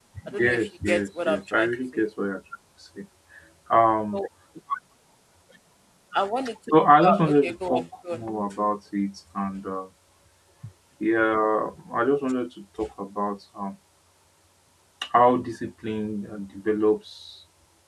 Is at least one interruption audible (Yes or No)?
Yes